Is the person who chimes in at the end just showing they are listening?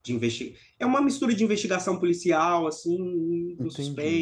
No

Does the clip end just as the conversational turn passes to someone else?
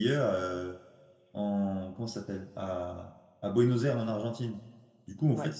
No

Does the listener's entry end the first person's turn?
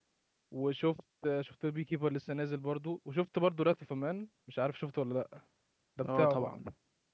Yes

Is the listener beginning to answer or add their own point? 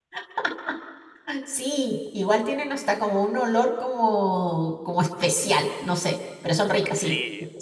Yes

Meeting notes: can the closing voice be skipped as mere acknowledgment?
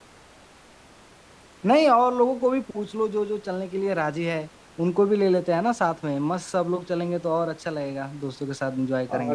No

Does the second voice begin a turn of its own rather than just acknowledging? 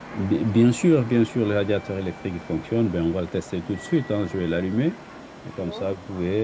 No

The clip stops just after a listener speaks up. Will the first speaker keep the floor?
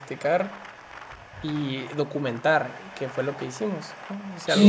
No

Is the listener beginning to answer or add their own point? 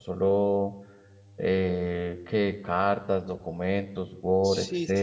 Yes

